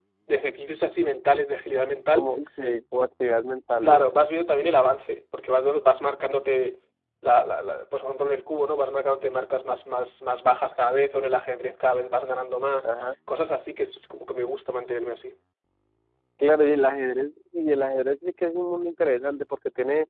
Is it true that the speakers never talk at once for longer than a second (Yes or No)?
Yes